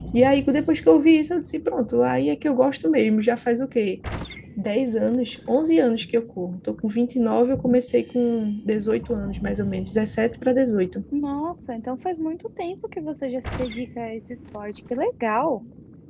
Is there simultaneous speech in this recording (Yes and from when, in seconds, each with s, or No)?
No